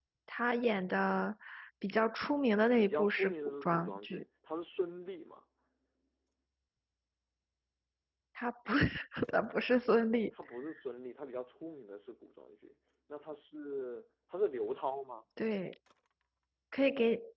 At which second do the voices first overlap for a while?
2.8 s

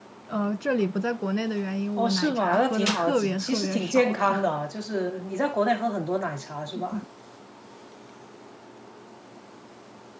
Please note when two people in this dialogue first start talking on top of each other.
2.0 s

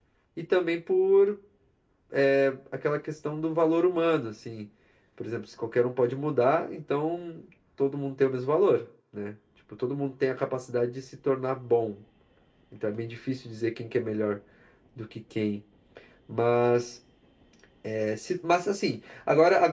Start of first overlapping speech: none

